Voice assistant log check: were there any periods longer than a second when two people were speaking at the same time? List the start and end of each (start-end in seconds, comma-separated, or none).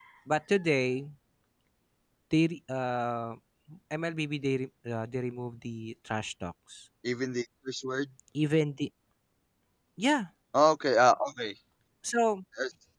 none